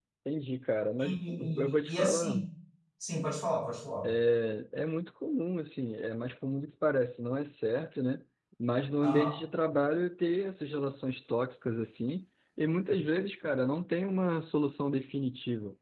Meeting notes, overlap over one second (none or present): present